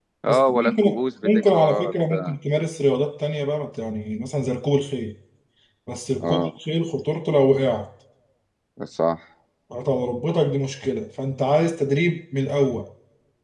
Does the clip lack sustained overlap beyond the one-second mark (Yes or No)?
No